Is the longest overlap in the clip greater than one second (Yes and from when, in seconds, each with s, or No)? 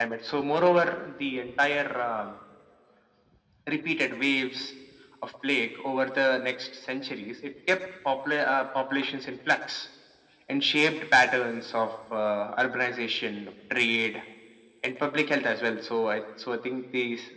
No